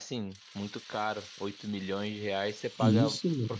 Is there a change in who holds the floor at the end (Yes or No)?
No